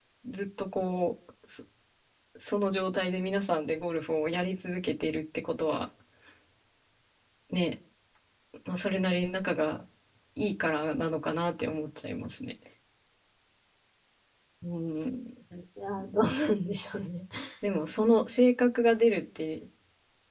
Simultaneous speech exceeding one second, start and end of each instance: none

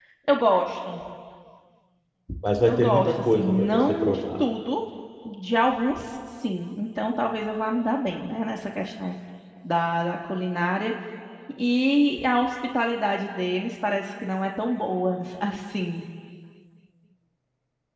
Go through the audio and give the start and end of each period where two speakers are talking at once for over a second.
2.6-4.4

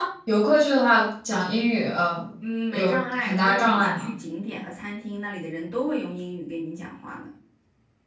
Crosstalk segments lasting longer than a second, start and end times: 2.7-4.1

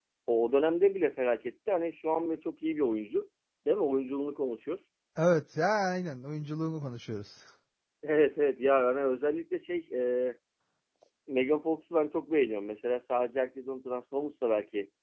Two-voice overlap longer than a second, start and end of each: none

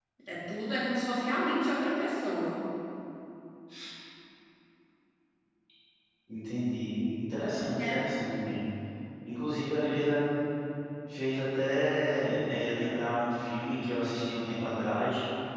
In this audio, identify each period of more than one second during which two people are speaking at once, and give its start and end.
none

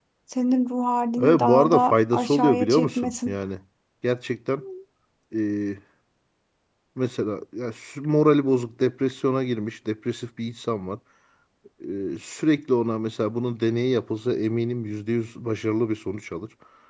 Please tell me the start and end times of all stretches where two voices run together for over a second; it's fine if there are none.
1.2-3.3

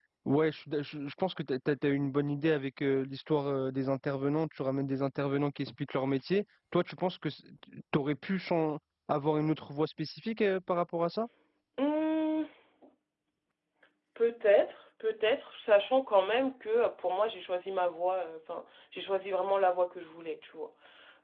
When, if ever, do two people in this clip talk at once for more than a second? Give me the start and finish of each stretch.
none

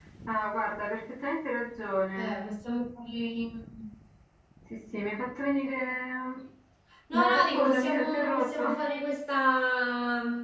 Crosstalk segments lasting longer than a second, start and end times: 7.1-8.6

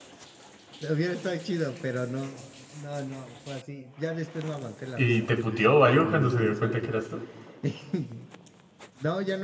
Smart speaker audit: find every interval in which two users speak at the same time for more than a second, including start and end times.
5.0-7.0

